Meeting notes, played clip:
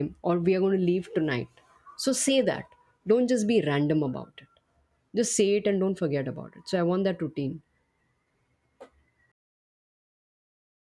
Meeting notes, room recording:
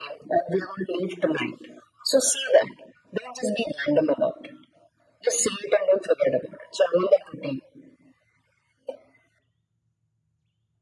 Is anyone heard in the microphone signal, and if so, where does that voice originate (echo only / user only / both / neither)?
echo only